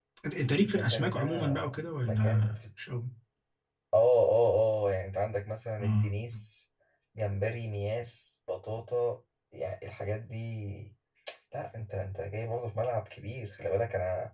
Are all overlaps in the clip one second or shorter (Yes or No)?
No